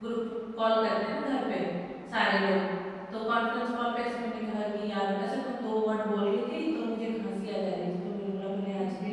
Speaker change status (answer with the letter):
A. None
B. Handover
A